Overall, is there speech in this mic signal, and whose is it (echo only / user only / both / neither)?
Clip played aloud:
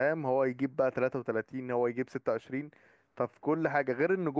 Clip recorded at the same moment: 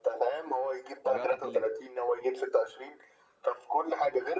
both